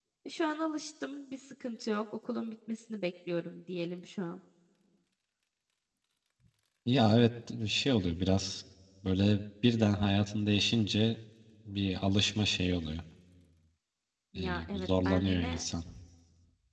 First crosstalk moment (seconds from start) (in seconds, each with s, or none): 14.3 s